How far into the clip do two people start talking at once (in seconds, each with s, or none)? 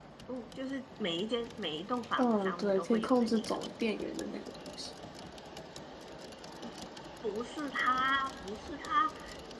2.2 s